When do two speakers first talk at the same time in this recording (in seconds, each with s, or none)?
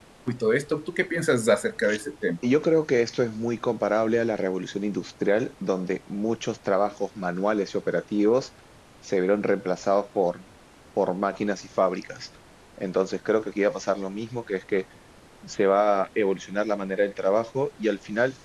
none